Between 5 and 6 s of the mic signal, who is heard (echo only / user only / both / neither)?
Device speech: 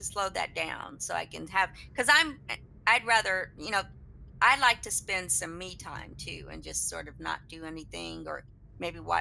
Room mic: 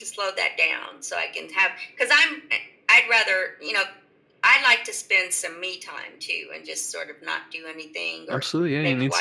echo only